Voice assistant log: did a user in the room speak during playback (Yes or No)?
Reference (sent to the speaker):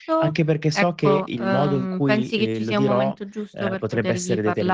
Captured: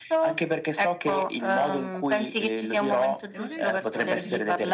Yes